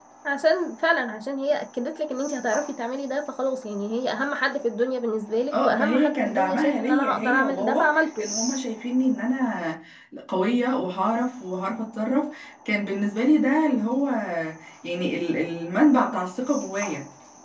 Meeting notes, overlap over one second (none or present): present